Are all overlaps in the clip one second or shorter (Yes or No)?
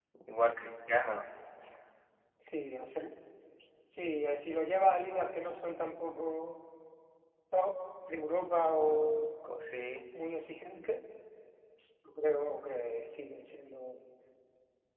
Yes